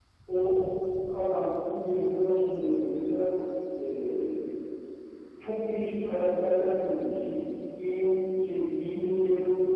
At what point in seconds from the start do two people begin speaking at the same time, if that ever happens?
none

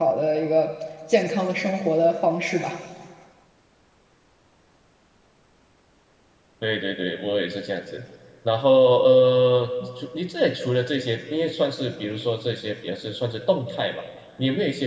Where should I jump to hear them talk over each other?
none

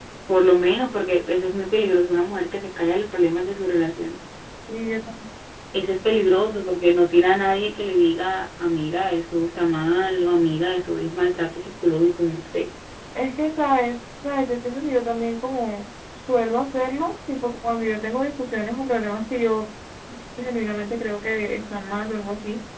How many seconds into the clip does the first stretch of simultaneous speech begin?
none

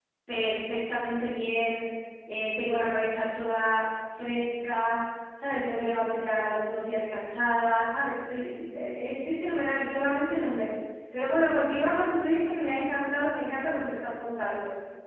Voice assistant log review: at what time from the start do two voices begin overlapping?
none

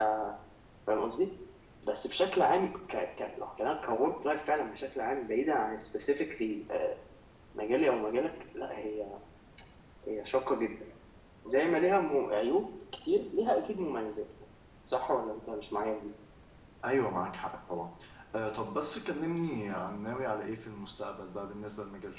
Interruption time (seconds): none

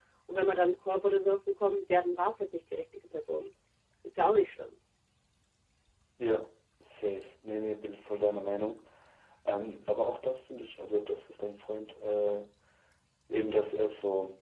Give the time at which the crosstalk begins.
none

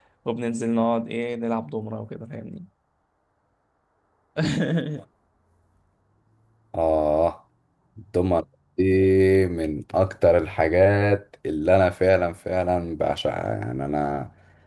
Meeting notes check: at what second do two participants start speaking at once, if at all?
none

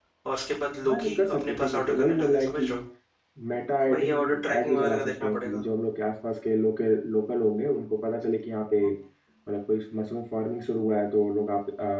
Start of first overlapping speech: 0.9 s

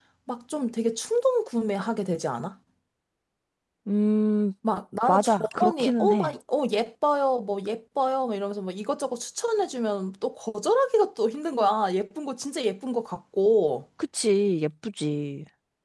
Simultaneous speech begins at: 5.1 s

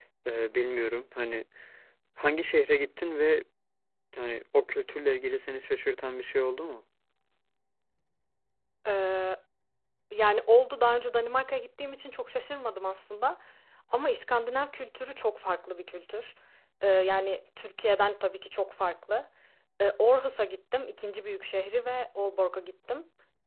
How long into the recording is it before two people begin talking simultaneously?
none

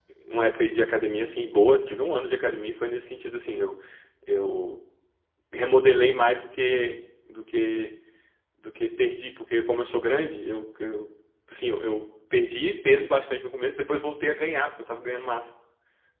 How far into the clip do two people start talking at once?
none

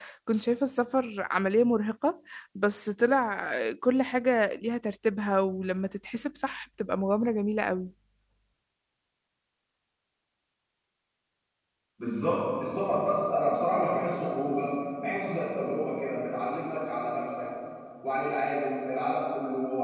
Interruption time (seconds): none

